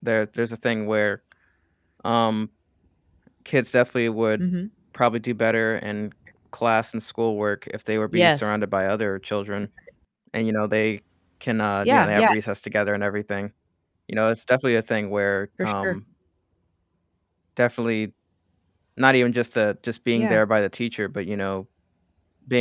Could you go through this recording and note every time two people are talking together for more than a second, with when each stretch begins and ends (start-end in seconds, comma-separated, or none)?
none